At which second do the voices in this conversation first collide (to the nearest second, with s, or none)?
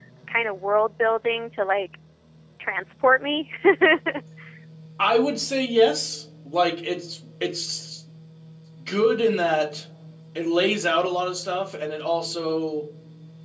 none